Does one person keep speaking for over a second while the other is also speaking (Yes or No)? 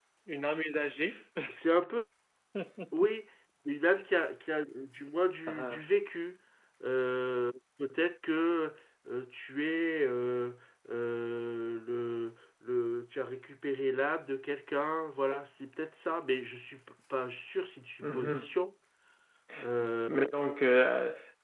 No